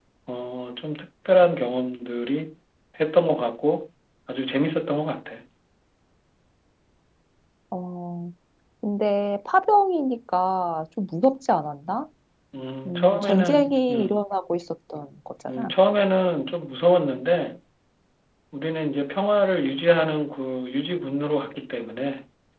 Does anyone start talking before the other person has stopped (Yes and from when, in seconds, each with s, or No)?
Yes, from 12.9 s